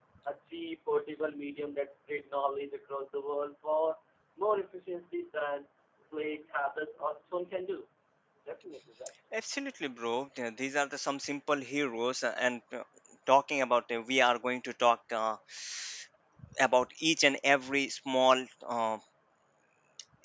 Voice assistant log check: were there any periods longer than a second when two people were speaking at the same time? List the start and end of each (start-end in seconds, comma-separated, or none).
none